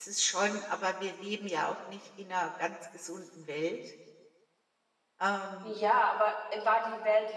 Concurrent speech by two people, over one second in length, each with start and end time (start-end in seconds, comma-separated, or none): none